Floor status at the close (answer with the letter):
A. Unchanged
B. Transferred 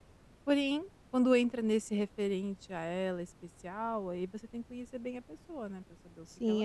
B